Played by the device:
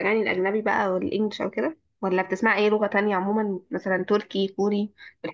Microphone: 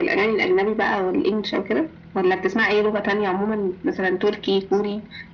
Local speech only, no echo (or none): none